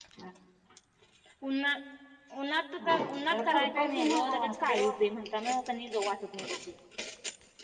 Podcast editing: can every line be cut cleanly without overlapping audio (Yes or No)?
No